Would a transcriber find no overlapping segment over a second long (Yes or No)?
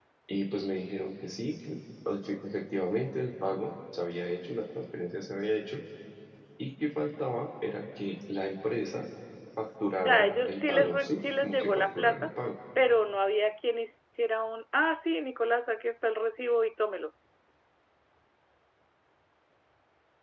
No